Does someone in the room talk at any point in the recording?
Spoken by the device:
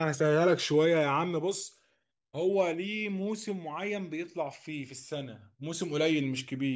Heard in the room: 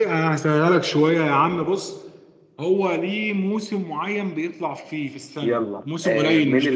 Yes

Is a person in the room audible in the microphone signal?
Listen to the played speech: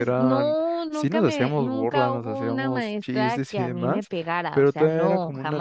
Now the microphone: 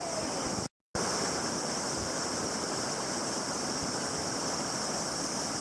No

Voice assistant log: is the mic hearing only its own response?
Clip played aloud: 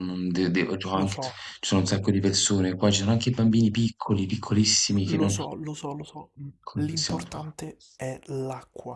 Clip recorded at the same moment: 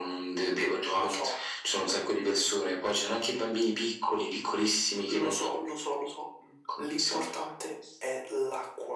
Yes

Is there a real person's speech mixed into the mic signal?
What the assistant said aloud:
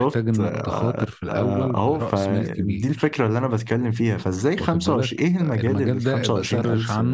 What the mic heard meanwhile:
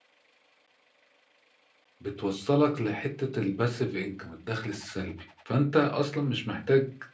Yes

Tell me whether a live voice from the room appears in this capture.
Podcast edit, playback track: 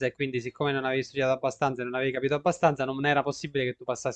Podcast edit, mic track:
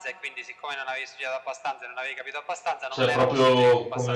Yes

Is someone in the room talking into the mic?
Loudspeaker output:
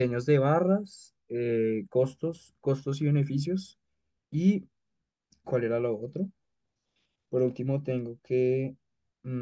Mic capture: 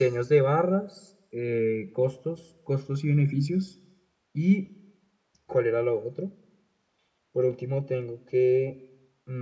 No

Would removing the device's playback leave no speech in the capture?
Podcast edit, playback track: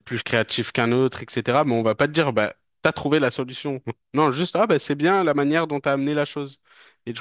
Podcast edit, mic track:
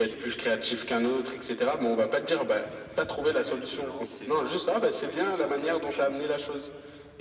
No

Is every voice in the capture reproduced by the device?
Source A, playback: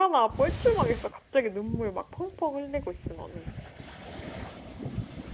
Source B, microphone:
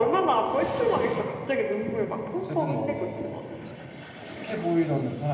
No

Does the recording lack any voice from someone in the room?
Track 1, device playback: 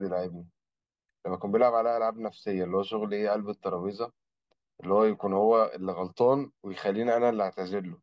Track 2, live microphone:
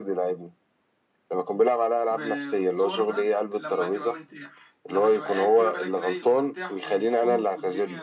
No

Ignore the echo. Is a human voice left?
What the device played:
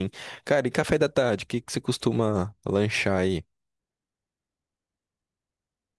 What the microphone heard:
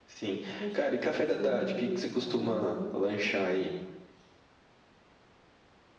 Yes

